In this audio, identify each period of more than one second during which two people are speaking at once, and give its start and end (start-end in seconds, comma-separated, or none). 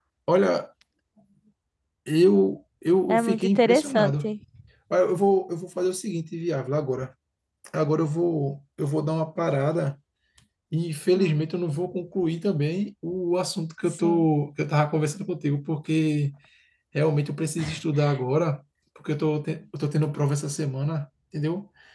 3.1-4.3